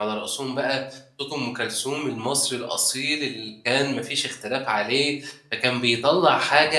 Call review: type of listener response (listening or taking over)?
listening